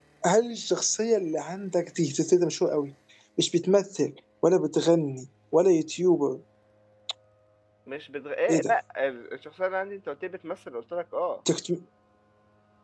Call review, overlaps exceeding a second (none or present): none